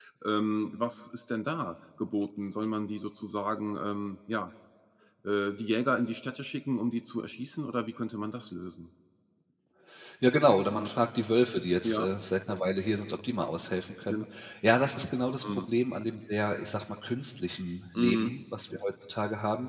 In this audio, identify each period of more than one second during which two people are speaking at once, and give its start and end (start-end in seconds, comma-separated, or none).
none